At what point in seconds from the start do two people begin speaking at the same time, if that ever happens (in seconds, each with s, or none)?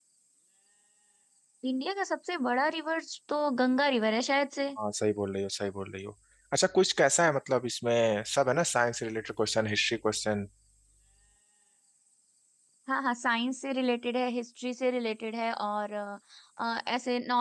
none